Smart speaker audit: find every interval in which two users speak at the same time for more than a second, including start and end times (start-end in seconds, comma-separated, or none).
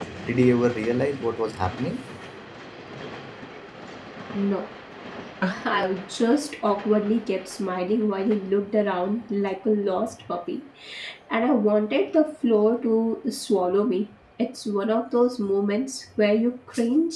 none